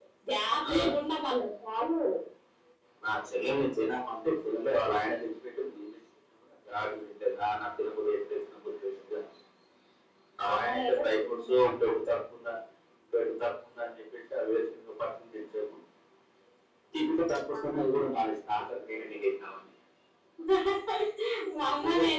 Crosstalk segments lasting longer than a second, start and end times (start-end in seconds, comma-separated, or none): 10.4-11.9